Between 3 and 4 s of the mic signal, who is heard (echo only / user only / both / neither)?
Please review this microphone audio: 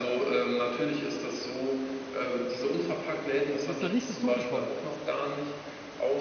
both